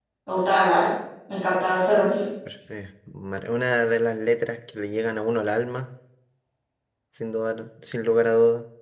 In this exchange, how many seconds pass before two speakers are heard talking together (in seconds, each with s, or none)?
none